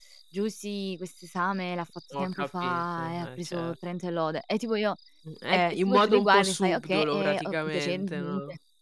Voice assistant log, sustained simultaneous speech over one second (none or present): present